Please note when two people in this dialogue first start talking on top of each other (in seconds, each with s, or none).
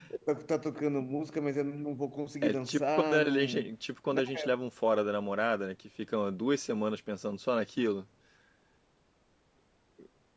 2.4 s